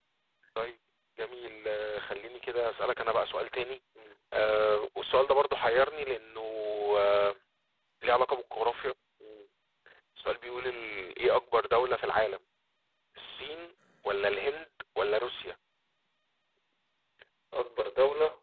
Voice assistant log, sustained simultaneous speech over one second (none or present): none